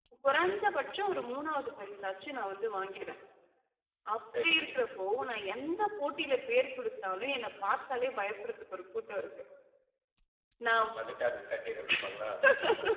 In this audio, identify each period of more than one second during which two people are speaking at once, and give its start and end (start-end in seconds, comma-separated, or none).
none